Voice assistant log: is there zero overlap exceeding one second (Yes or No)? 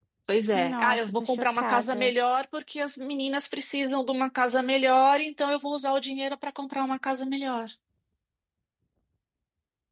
No